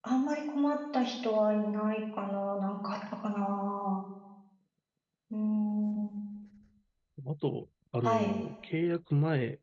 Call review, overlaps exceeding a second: none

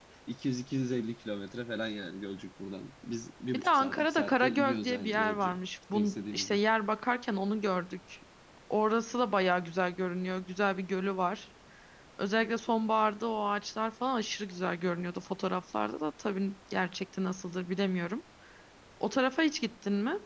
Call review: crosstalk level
present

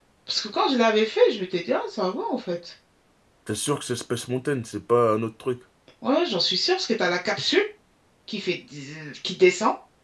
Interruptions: none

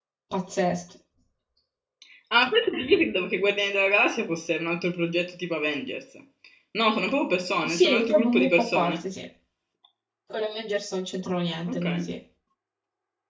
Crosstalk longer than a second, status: present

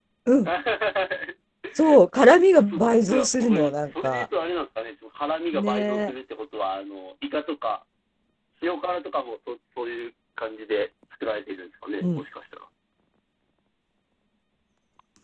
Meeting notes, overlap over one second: present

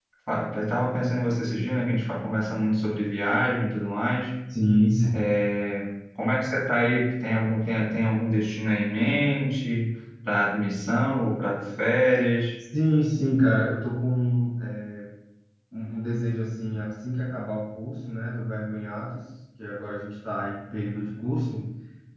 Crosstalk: none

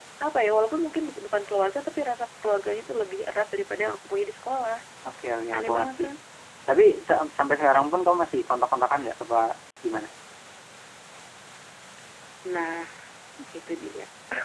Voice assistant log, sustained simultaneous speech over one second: none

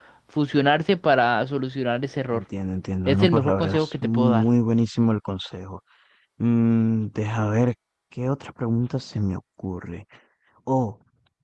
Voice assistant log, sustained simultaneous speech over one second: present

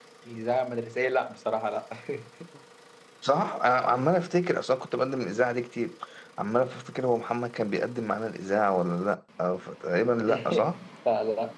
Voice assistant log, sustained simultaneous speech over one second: none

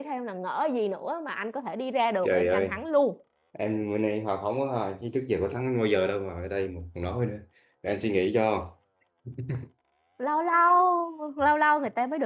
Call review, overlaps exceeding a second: none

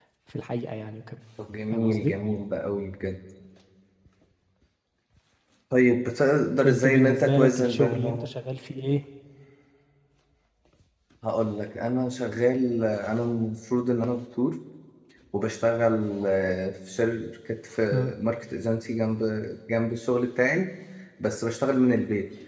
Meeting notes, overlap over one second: present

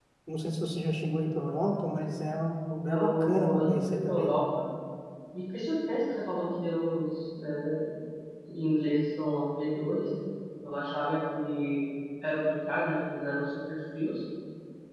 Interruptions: present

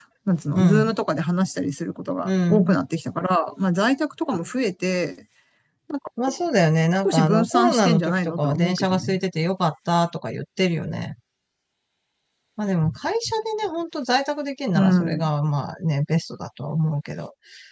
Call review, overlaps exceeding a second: present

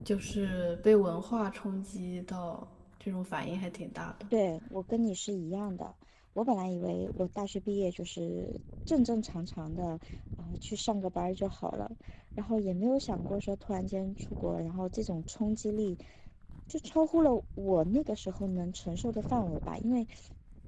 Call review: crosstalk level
none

